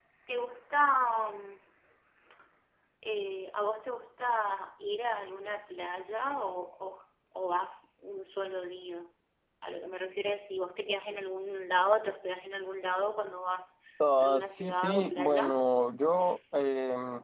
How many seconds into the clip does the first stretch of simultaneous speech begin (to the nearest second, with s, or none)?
14 s